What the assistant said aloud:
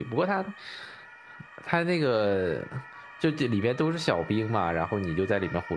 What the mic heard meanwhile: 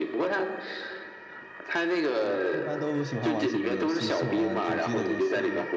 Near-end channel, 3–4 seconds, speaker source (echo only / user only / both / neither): both